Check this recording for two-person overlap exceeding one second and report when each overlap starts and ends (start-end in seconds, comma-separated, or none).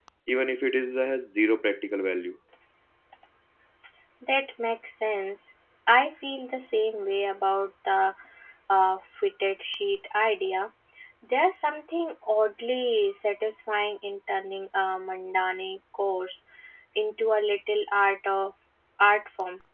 none